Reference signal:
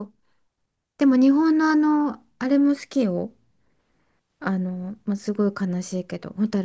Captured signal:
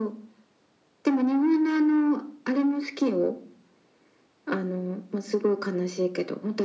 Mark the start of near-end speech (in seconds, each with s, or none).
none